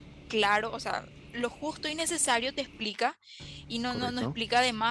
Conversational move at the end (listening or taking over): listening